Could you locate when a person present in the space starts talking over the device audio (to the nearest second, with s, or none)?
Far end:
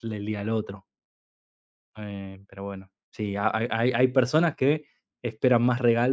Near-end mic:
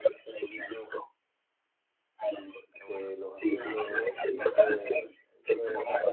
3 s